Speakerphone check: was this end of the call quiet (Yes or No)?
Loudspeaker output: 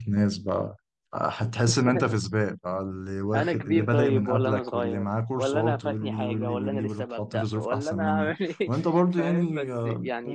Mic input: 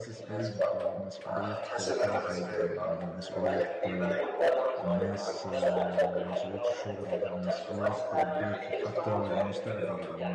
No